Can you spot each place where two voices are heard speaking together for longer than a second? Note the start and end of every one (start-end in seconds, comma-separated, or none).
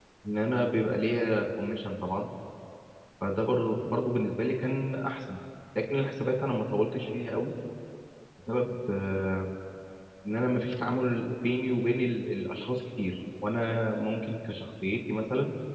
none